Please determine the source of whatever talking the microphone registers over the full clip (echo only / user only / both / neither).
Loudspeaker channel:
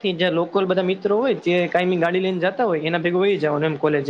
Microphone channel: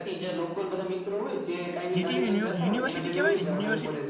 both